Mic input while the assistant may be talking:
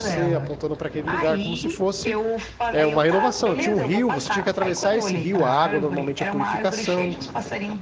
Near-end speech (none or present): present